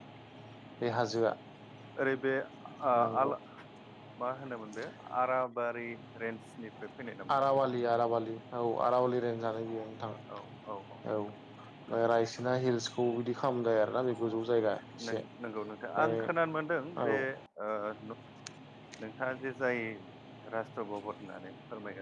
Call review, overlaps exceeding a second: none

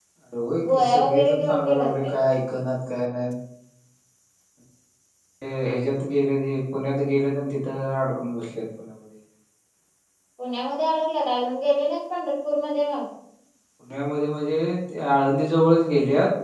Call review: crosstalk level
present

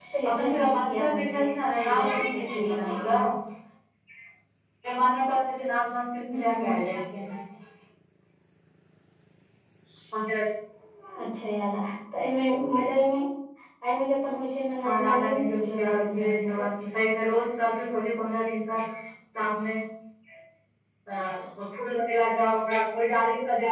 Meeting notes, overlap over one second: present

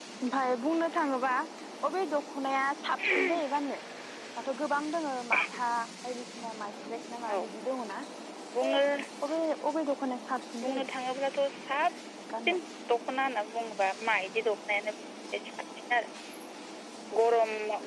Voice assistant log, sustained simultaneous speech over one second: none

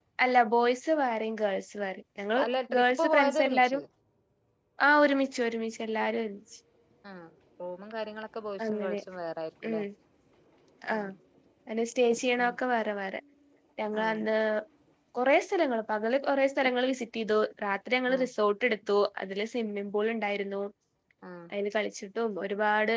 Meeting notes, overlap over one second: present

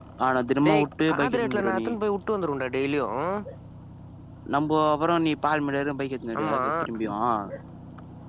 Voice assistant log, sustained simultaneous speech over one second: present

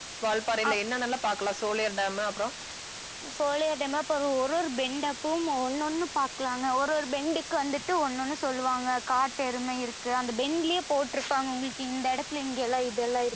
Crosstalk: none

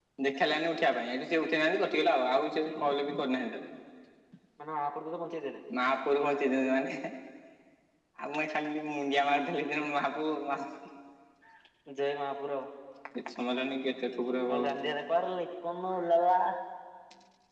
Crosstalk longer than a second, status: none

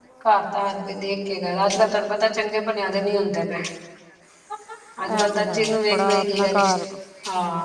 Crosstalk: present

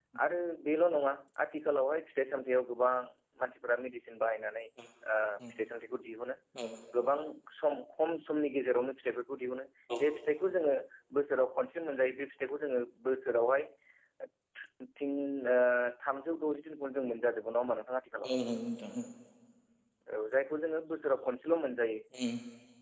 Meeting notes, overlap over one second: none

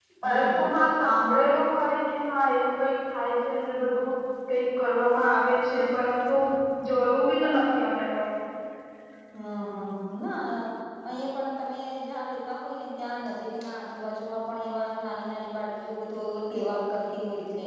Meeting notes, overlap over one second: none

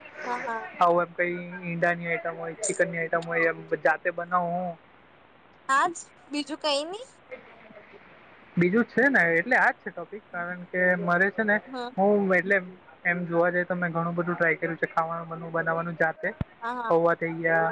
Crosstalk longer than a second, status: none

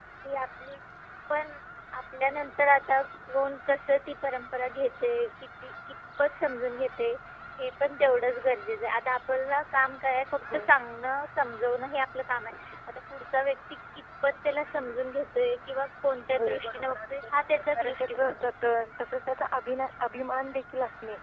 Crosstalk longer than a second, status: present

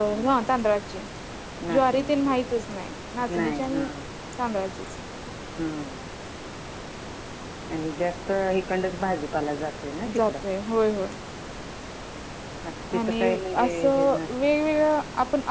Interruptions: present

